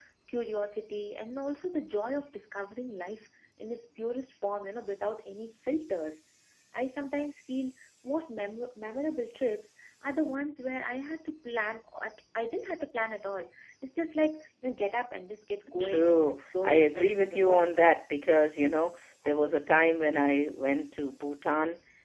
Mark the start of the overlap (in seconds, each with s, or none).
15.7 s